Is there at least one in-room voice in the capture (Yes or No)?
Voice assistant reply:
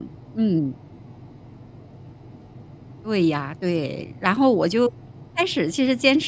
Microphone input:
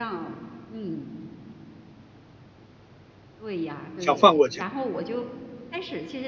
Yes